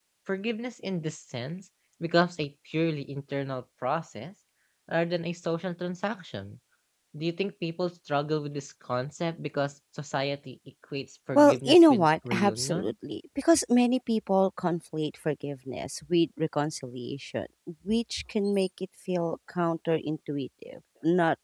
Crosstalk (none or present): present